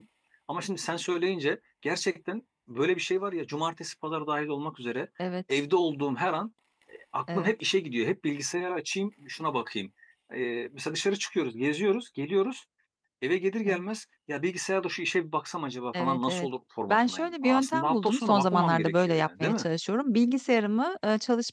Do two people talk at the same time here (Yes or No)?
Yes